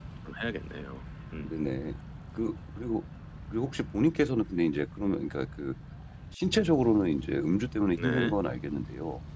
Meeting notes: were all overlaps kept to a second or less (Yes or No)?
Yes